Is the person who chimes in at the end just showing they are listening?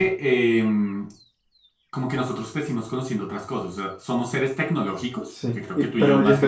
No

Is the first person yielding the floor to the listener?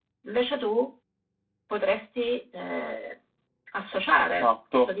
Yes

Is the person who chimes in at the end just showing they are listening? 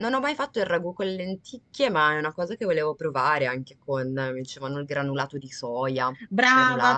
No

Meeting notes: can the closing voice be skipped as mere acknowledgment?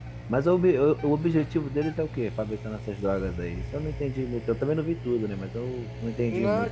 No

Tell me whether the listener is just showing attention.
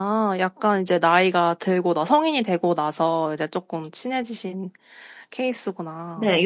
No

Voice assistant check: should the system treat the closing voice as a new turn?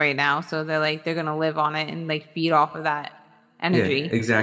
Yes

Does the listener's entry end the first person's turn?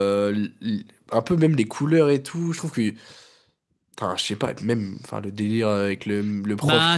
Yes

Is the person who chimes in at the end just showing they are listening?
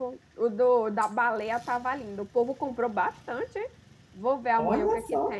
Yes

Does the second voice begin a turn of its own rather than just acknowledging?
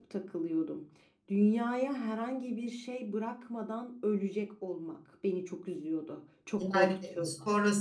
Yes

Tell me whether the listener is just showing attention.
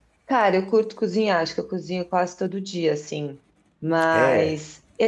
Yes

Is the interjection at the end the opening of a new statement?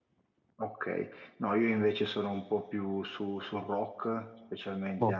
No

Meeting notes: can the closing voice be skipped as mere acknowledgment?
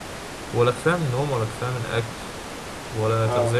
Yes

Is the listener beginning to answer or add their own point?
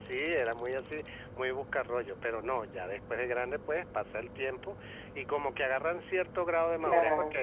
No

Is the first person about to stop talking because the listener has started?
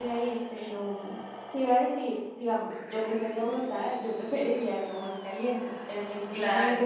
No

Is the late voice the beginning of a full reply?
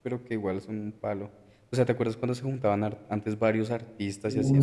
Yes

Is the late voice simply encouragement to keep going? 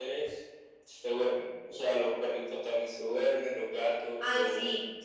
No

